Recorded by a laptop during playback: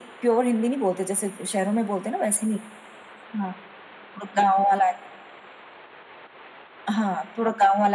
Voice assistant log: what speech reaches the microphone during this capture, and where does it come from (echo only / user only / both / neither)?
echo only